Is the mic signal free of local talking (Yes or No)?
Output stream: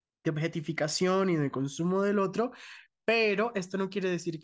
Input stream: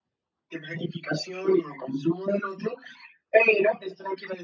Yes